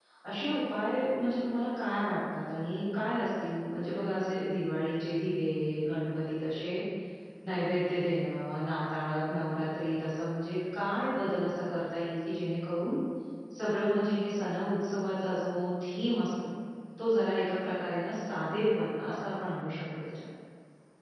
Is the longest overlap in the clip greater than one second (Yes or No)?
No